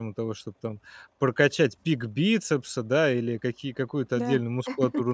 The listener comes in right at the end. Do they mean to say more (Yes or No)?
No